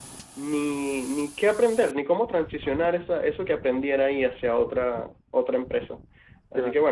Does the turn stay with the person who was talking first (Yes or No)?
Yes